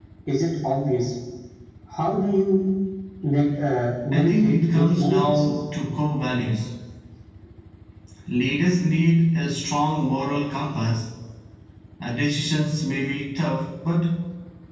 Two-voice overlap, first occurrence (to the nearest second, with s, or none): 4 s